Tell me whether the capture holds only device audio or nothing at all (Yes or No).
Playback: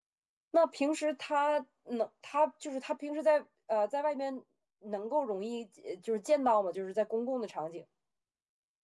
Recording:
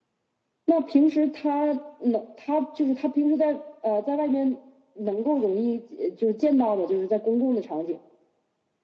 Yes